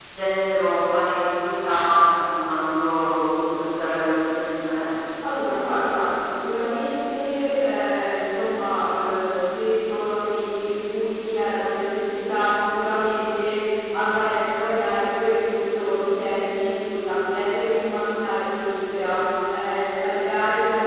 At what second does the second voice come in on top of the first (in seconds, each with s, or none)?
none